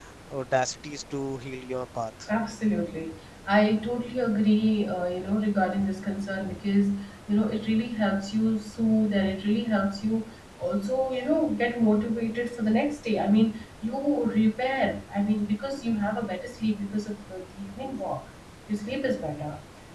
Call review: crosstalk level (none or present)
none